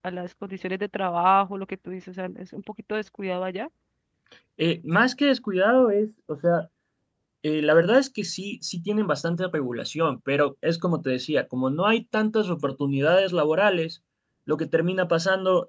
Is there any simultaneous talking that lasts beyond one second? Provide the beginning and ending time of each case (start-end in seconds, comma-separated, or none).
none